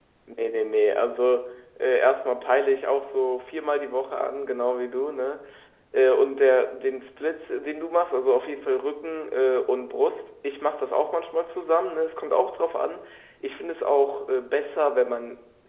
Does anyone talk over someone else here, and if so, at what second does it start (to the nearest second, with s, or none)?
none